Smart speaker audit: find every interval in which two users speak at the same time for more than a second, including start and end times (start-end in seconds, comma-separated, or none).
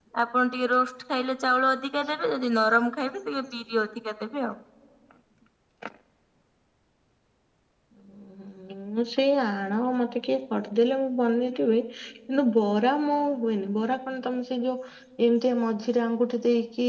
none